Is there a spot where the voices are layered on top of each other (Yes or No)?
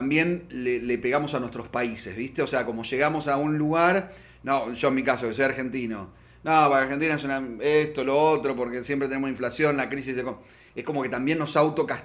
No